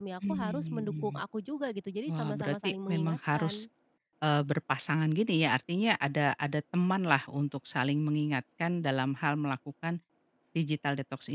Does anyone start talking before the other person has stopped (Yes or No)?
Yes